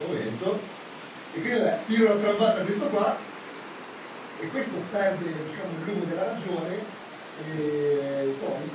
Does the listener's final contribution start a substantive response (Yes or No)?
No